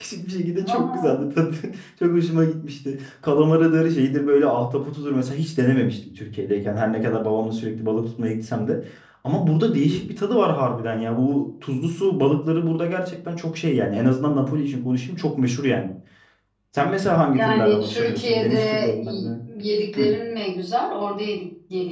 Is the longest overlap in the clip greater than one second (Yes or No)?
Yes